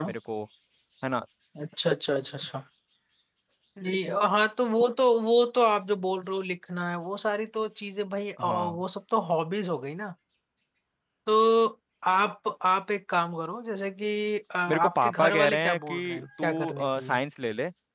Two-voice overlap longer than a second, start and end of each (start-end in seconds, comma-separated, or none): 14.7-17.2